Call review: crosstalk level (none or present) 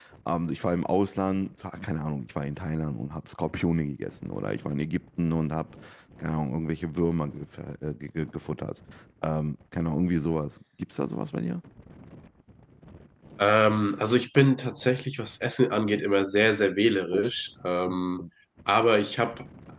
none